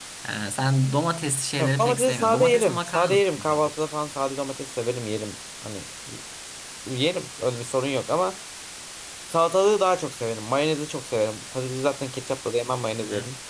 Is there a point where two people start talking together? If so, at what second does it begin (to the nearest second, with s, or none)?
2 s